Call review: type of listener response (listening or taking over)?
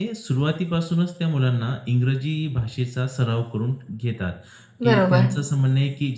listening